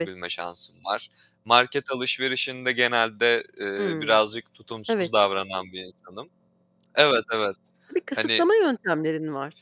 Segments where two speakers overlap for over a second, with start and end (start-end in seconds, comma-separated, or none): none